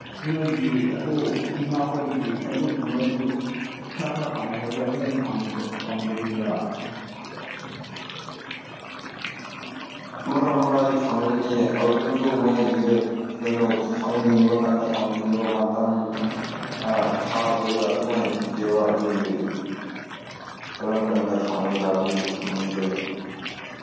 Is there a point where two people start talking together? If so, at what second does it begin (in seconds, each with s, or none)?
none